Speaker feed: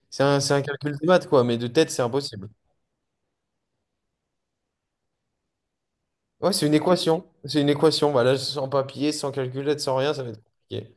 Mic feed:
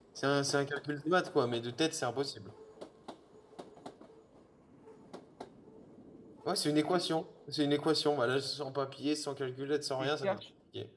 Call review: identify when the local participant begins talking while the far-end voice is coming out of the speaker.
10.0 s

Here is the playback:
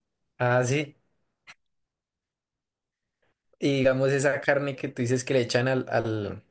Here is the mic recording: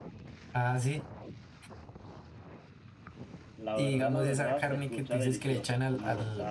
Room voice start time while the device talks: 3.6 s

